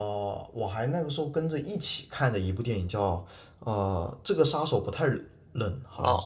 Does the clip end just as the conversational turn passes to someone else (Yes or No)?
Yes